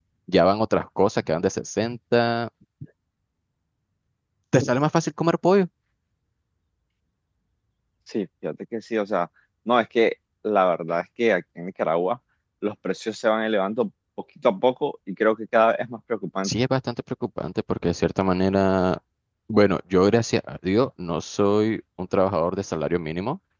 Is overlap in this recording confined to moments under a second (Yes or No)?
Yes